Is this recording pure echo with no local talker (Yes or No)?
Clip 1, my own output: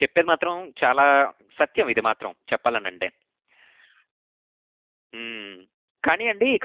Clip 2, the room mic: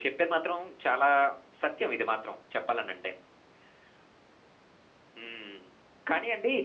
Yes